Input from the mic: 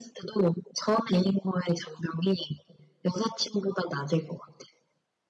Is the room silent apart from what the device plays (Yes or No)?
Yes